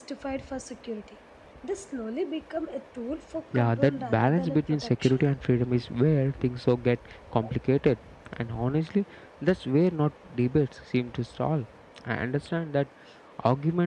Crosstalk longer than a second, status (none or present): present